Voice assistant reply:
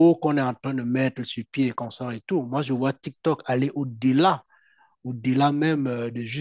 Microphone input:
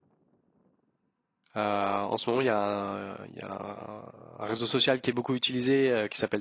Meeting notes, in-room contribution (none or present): present